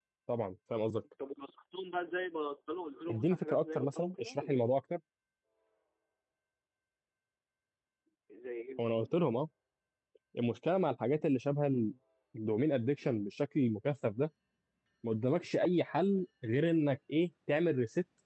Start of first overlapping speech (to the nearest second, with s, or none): 3 s